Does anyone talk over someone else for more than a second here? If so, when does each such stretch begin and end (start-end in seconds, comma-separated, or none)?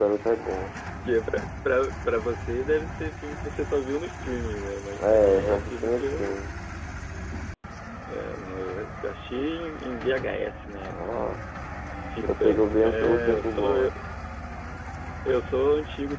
5.0-6.4, 12.3-13.9